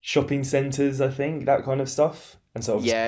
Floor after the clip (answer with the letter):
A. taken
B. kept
A